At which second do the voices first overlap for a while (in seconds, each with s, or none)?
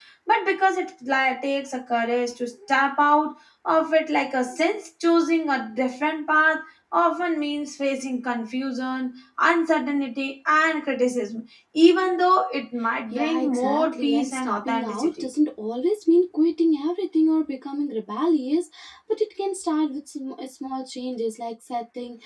13.1 s